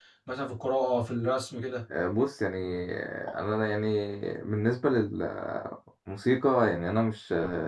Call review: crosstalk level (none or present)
none